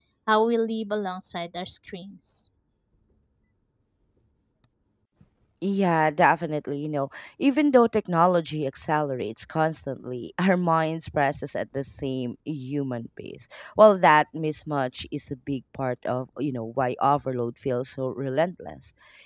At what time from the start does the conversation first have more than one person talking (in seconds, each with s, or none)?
none